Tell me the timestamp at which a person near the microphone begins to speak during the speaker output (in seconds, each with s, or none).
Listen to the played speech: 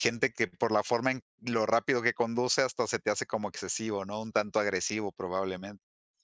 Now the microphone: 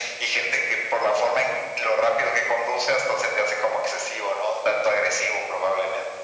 none